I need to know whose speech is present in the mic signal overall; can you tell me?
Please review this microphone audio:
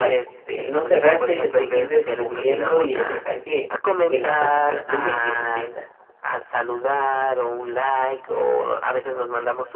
both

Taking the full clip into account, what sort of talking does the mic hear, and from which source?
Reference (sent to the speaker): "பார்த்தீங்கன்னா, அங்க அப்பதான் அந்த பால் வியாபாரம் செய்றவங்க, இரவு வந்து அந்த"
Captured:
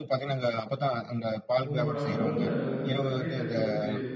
both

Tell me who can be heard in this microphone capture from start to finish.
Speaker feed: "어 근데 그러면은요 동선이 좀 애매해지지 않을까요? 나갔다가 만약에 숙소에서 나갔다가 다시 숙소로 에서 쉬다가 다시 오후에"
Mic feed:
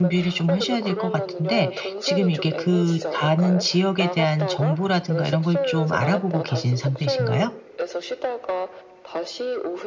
both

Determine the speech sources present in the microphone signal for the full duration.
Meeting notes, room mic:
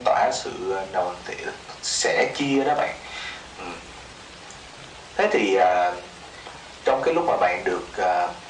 echo only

